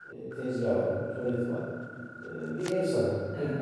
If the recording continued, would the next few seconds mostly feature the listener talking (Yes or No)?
No